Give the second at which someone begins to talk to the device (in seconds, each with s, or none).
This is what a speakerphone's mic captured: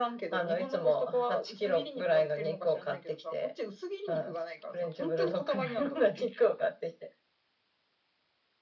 none